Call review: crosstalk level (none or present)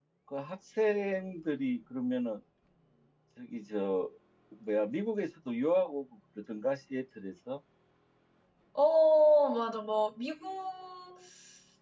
none